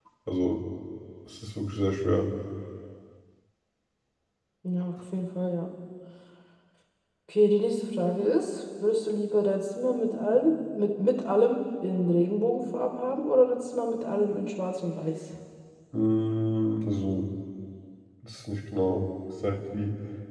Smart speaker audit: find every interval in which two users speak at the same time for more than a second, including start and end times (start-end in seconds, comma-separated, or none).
none